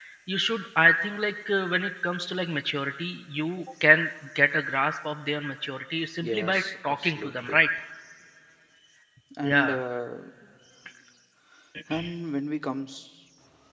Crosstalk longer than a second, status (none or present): present